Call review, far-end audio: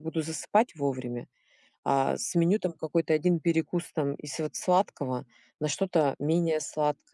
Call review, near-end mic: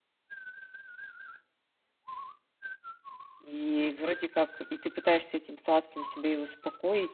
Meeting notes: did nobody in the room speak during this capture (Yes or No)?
No